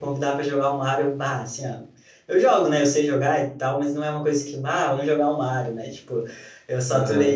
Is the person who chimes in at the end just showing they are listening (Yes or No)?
Yes